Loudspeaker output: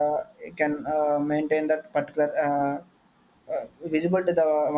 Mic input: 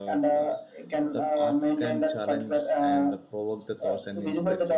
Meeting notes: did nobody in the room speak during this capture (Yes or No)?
No